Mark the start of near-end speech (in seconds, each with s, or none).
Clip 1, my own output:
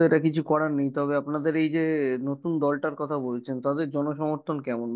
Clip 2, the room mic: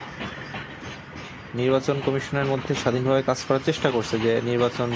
1.6 s